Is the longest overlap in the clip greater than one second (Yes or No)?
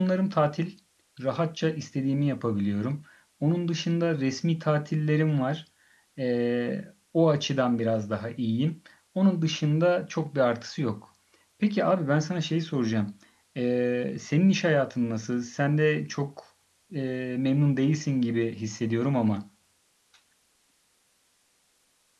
No